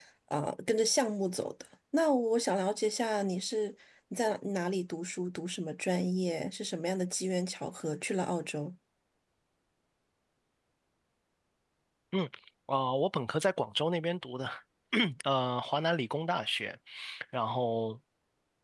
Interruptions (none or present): none